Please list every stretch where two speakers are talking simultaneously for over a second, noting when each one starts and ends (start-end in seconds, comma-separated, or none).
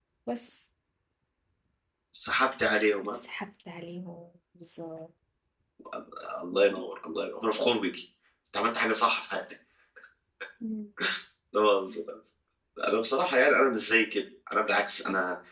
none